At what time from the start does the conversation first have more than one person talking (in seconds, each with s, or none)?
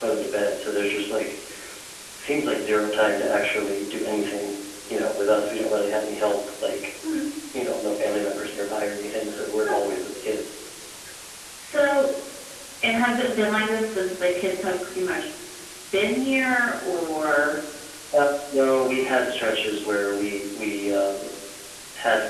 none